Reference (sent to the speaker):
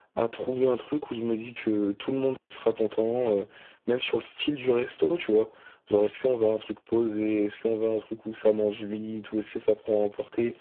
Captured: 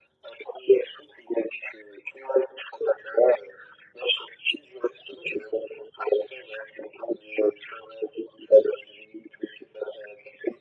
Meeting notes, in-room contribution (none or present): none